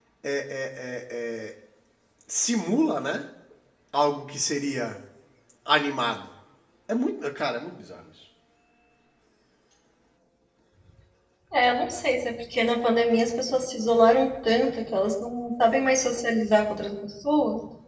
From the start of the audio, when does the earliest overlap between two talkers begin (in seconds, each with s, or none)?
none